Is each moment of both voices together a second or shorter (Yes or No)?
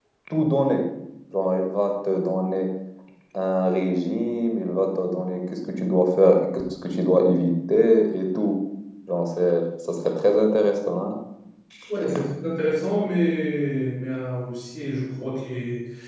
Yes